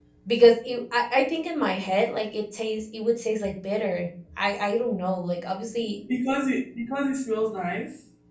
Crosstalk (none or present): none